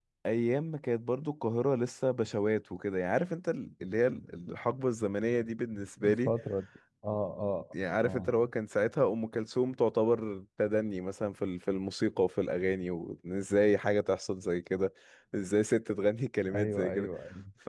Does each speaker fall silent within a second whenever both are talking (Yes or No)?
Yes